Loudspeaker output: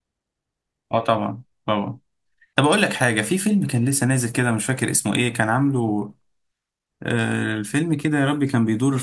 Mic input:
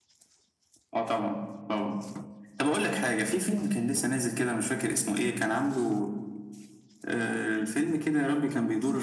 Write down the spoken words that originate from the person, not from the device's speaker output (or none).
none